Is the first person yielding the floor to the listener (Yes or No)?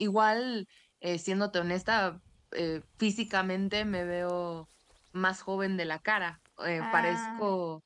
No